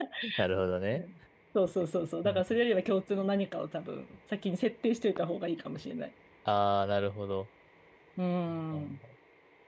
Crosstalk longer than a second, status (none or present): none